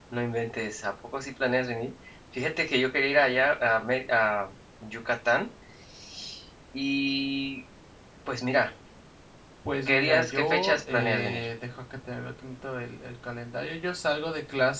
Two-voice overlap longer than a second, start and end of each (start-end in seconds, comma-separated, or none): 9.9-11.4